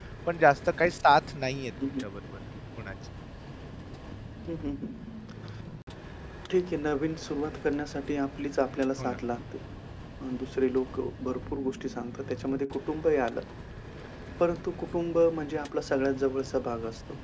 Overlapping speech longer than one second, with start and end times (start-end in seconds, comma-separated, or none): none